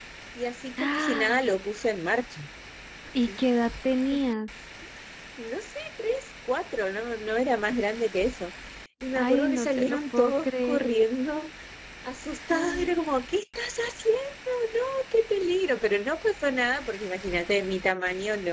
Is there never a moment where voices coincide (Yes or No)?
No